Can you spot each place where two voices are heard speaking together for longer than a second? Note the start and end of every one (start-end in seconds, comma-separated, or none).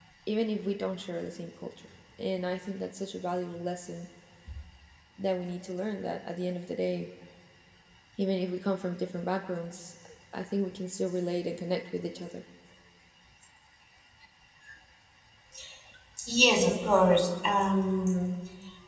none